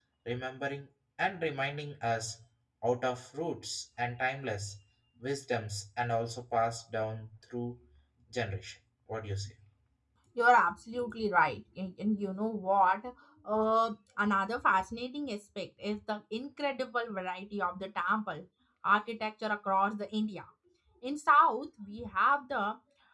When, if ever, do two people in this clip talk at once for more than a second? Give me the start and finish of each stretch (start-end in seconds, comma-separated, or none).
none